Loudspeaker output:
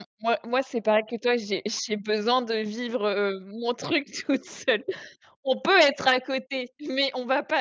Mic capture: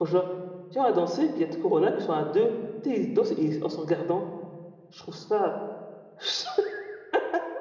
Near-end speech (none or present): present